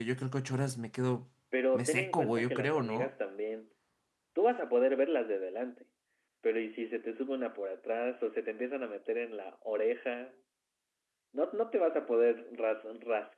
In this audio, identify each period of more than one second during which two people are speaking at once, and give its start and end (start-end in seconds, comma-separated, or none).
1.7-3.1